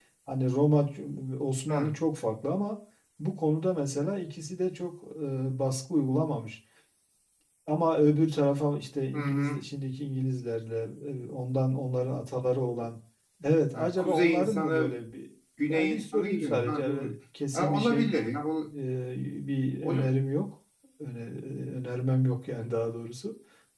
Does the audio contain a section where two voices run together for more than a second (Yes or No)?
Yes